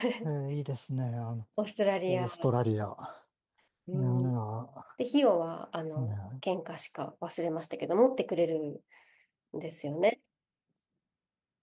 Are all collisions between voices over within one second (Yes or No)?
Yes